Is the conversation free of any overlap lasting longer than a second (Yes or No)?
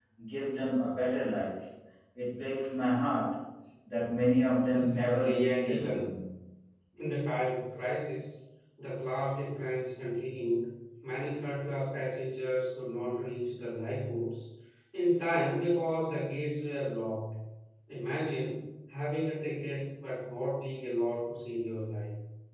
No